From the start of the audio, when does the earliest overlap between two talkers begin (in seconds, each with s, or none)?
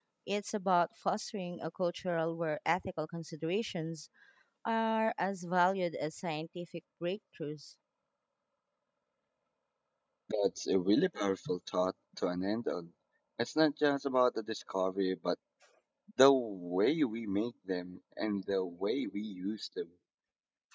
none